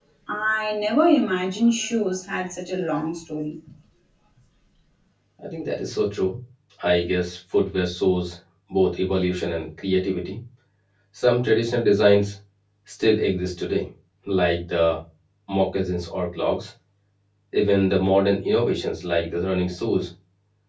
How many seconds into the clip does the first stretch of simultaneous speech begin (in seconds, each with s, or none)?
none